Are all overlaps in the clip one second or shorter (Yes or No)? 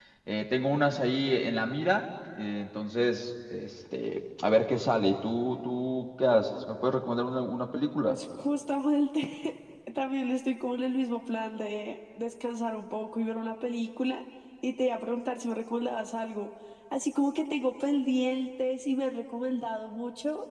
Yes